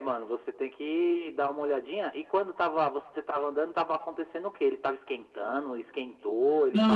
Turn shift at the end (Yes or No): Yes